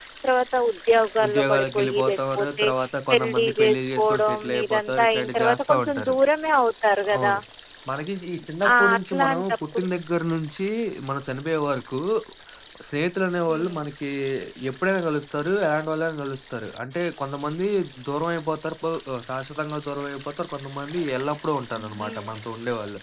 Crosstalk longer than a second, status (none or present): present